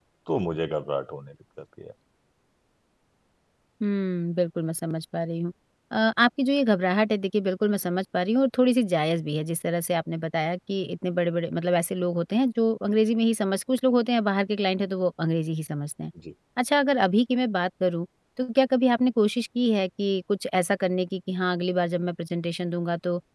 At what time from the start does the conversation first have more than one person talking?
none

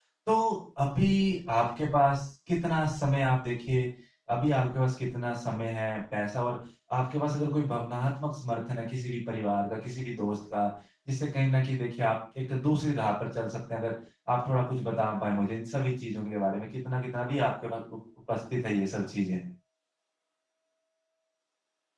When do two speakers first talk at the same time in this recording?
none

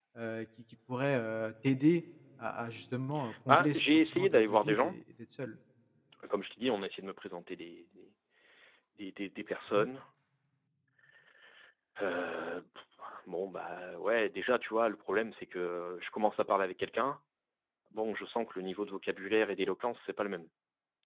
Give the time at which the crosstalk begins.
3.3 s

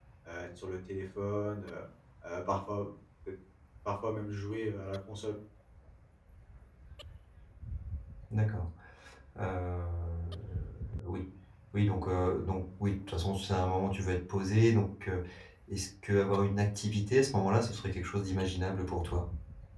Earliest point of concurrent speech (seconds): none

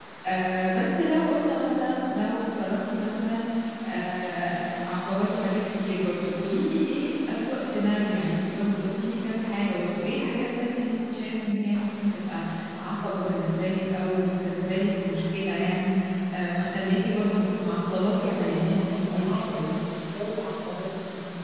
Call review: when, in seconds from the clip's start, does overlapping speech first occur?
17.1 s

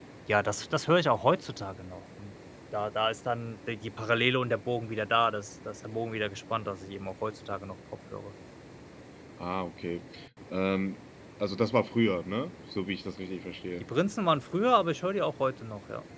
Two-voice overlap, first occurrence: none

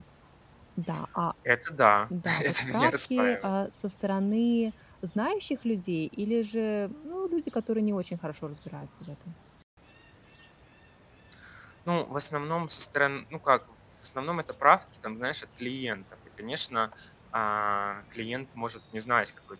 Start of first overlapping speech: 2.2 s

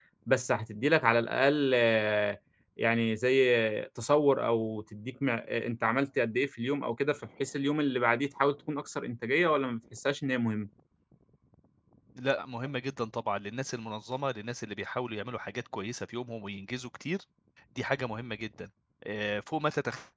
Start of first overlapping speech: none

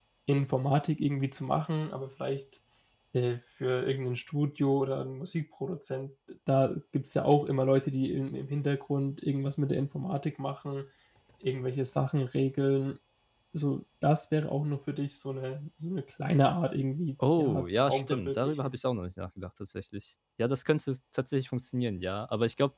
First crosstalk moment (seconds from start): 17.2 s

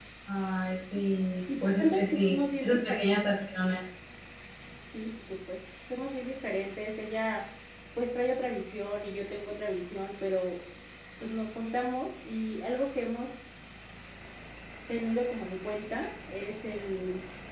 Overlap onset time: 1.5 s

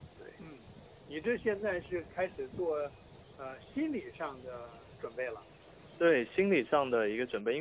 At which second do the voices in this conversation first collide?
none

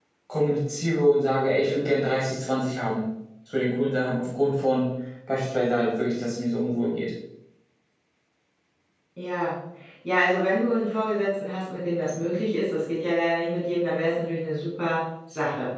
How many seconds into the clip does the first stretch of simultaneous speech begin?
none

